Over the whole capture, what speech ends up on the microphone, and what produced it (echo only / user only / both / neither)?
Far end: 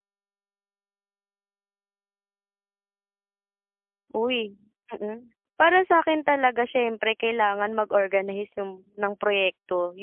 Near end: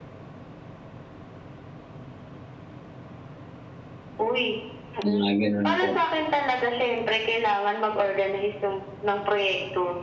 both